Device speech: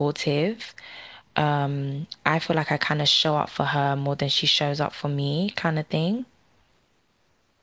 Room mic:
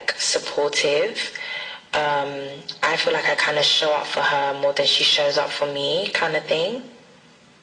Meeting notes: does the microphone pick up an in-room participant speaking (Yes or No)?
No